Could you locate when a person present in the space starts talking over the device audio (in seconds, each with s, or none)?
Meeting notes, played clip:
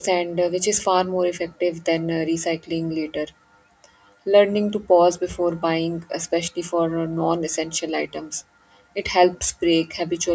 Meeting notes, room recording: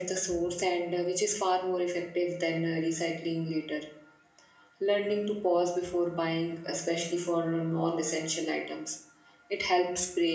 none